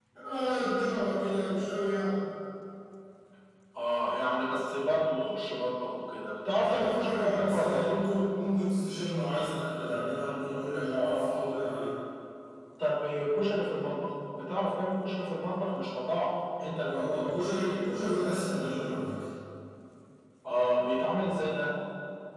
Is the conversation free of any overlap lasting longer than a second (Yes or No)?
No